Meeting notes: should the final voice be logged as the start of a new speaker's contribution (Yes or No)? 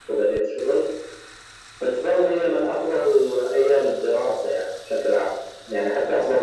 No